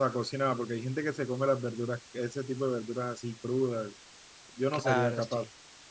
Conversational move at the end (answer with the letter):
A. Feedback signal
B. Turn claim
B